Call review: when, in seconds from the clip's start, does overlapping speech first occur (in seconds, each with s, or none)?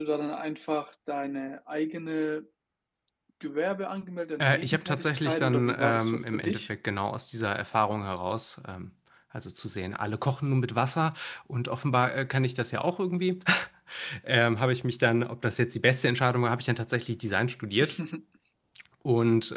4.4 s